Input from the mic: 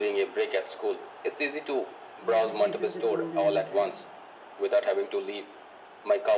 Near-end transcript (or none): Yeah, it depends upon the mood, right?